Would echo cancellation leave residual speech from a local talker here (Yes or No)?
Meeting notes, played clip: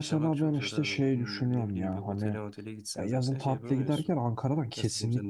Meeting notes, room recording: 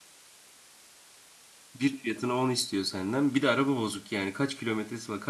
Yes